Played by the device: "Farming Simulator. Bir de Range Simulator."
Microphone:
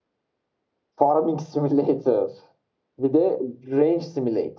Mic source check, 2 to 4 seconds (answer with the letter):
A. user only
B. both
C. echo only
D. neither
C